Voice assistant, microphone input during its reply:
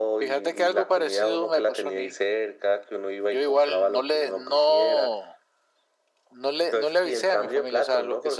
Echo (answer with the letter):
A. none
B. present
B